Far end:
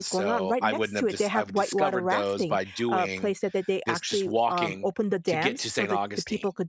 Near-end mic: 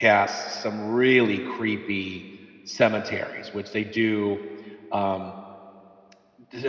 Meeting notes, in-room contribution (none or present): present